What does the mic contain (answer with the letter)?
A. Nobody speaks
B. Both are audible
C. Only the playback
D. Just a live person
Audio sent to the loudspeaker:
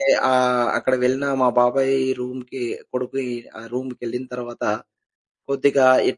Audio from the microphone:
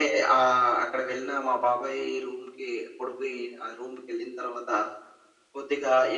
C